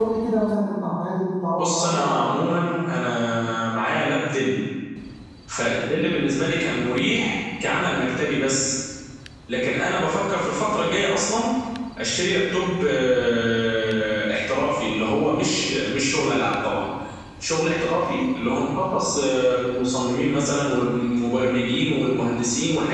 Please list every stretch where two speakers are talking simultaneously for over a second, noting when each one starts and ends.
1.6-2.8

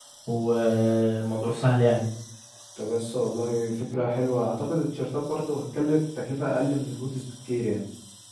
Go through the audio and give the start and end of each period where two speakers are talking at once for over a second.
none

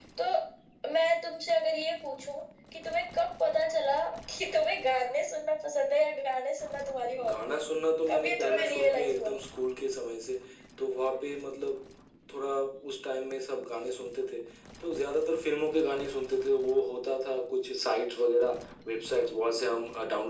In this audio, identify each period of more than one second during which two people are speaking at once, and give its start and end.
8.1-9.3

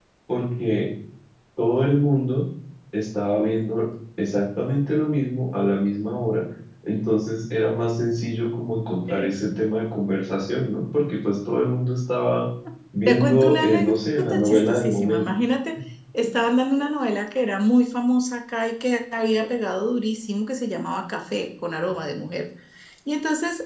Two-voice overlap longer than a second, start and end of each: 13.1-15.3

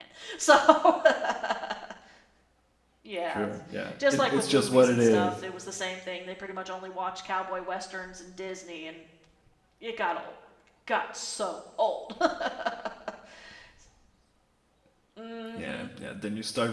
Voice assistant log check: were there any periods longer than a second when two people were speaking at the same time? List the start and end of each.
4.1-5.3

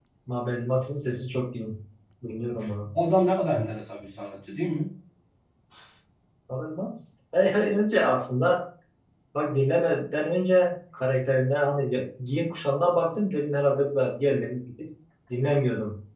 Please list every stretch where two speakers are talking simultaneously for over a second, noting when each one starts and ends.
none

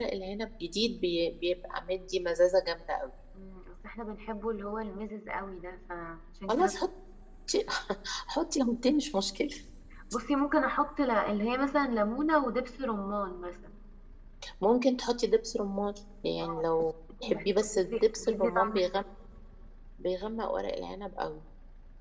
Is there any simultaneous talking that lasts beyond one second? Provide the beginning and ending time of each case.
17.2-19.0

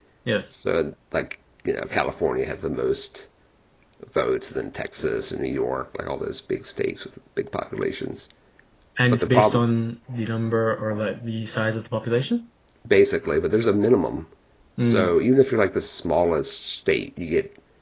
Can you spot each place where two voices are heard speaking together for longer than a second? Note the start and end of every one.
none

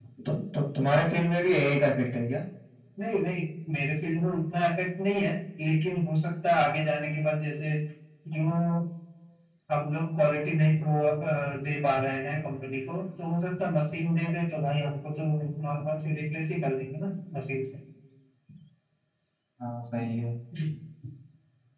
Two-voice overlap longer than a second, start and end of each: none

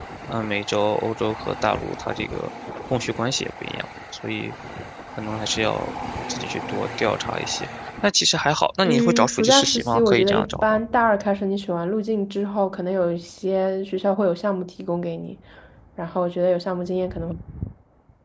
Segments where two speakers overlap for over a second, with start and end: 8.8-10.8

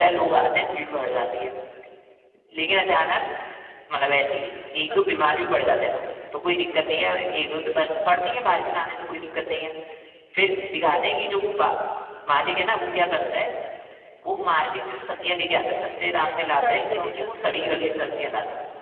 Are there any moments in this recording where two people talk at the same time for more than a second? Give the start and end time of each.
16.5-17.7

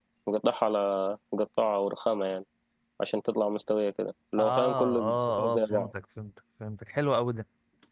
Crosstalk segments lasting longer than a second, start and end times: 4.4-5.9

